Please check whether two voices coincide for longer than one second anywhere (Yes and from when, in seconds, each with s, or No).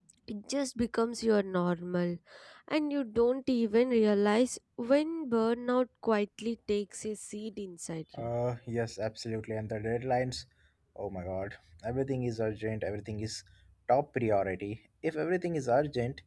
No